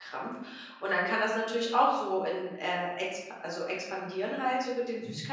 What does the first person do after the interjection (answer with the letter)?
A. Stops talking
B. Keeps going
B